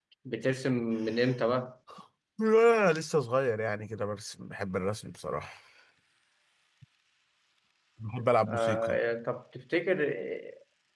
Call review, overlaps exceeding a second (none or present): none